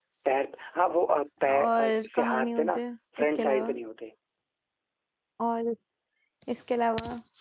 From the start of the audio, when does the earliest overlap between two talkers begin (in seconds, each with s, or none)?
1.4 s